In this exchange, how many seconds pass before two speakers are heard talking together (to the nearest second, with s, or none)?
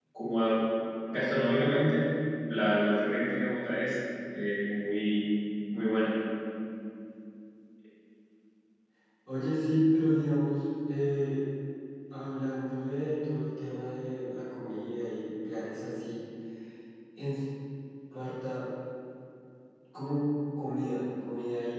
none